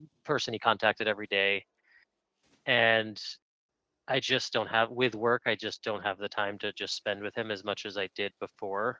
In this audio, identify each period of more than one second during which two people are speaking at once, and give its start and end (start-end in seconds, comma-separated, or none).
none